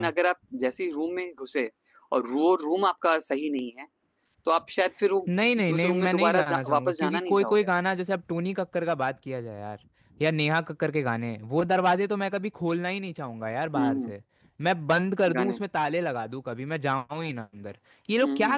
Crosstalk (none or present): present